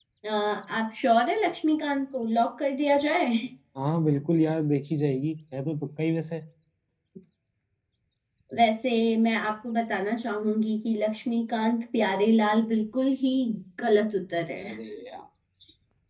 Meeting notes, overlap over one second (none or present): none